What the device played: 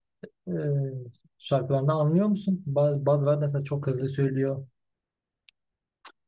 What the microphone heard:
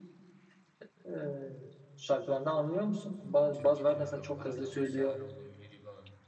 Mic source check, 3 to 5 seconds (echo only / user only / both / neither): both